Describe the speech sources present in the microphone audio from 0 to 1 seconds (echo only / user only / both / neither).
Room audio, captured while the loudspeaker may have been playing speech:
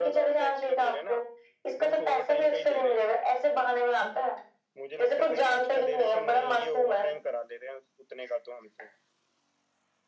both